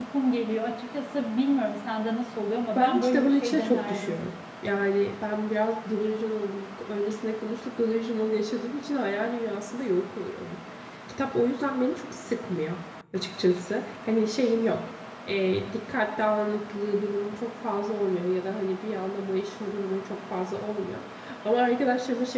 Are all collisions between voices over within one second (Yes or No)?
No